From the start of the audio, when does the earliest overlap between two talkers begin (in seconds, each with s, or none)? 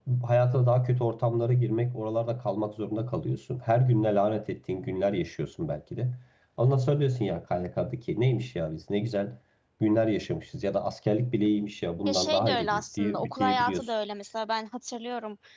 12.1 s